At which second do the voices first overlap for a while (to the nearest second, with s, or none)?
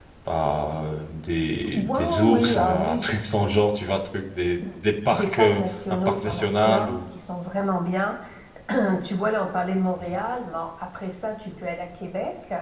2 s